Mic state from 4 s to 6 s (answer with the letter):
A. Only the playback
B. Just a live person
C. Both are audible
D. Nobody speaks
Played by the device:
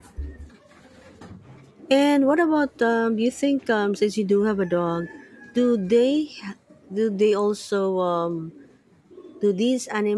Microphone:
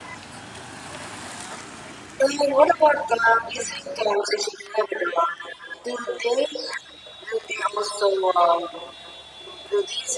A